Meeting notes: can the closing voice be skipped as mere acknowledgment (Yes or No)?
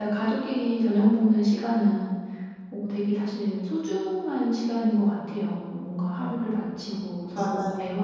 Yes